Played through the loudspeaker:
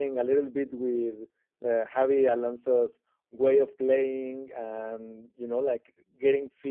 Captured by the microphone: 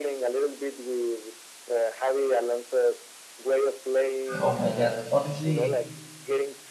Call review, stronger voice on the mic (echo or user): user